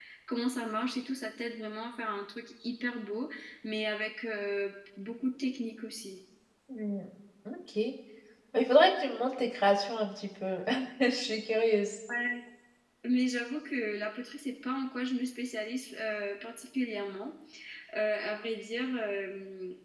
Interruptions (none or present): none